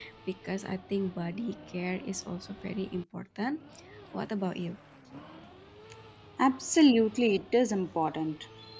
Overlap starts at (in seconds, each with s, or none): none